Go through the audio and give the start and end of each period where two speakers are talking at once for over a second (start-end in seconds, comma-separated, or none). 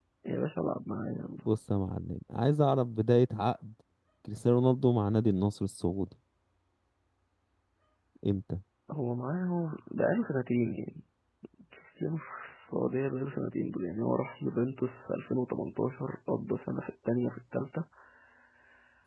none